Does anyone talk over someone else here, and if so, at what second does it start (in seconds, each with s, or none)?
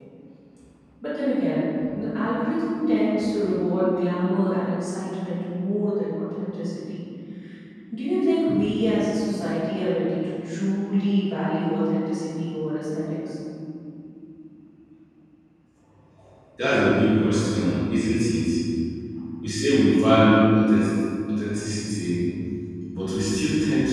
none